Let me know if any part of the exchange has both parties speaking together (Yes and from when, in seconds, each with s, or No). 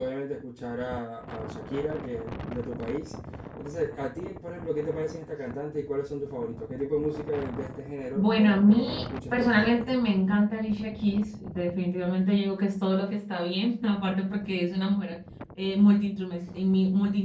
Yes, from 8.2 s